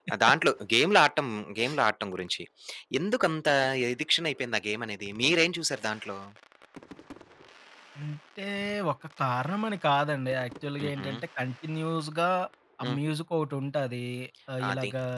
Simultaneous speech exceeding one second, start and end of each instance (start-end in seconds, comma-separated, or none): none